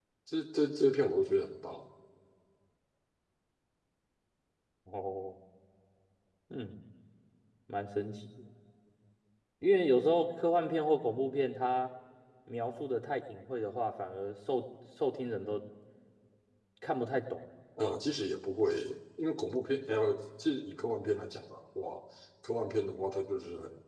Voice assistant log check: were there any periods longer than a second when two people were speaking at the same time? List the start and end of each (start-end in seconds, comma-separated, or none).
none